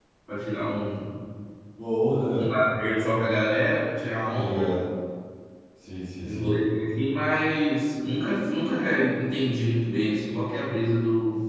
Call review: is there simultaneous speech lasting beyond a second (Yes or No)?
No